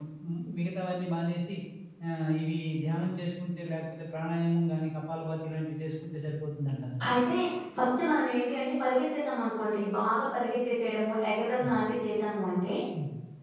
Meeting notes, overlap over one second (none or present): none